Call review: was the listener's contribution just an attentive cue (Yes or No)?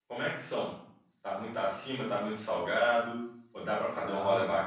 Yes